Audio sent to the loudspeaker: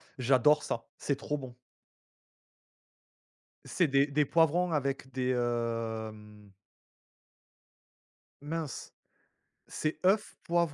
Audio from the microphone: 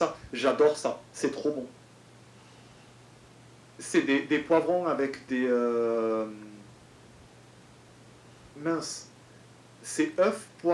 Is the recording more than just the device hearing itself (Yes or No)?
No